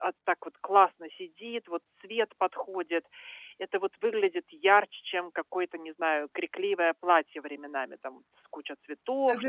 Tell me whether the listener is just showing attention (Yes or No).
No